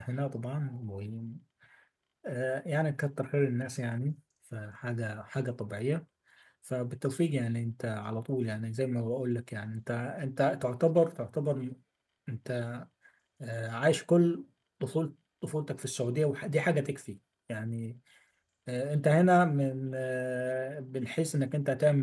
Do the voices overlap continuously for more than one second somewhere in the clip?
No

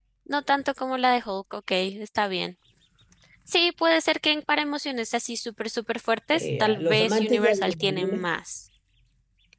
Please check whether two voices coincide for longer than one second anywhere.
Yes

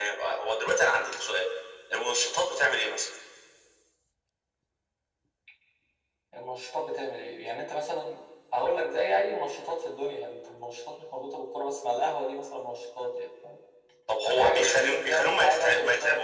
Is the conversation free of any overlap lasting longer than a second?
No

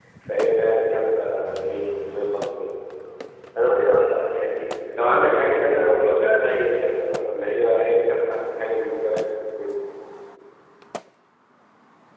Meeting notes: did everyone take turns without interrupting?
No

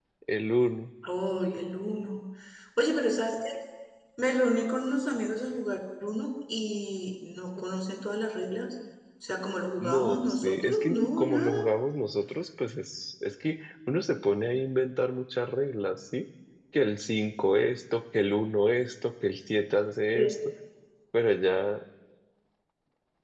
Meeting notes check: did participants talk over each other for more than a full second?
Yes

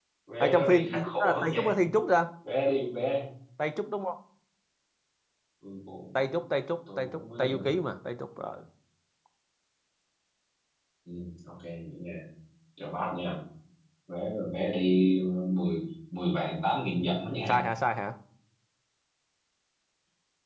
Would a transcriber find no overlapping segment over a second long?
No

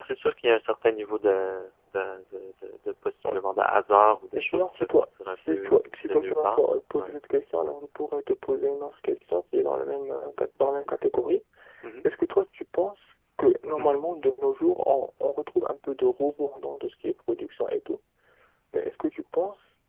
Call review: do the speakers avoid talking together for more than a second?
No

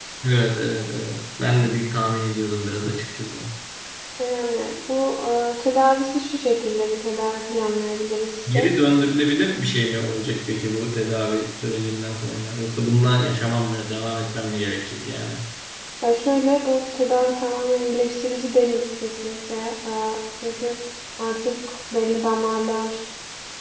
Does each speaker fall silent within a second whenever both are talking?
Yes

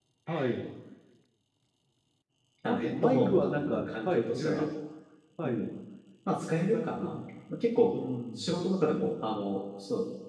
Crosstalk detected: Yes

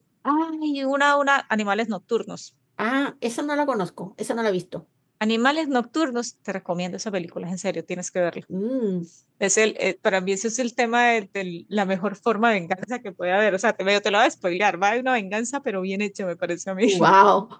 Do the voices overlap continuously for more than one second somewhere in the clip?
No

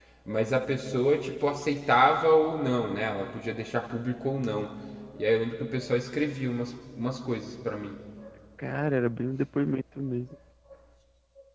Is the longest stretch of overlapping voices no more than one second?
Yes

